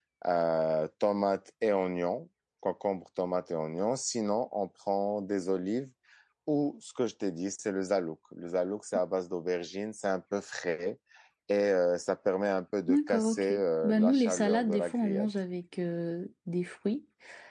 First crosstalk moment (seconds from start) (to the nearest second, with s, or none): 13 s